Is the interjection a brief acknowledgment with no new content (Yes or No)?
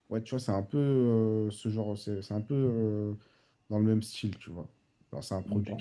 Yes